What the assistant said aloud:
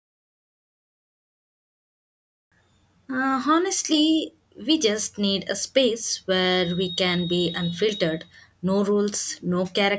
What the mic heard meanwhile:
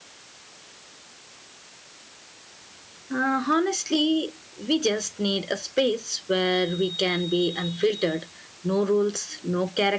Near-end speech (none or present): none